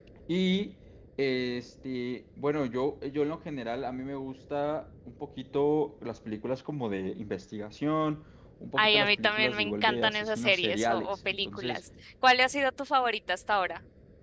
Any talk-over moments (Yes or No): Yes